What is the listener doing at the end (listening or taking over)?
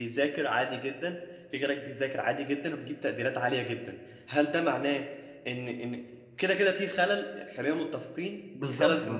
taking over